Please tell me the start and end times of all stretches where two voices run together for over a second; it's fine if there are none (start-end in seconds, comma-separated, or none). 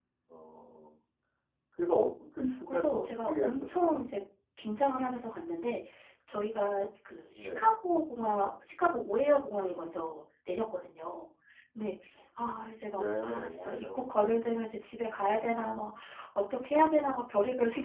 2.7-4.0, 12.9-14.4